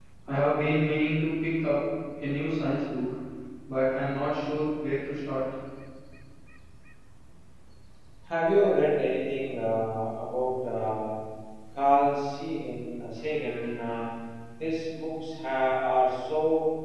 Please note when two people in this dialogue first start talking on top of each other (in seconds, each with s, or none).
none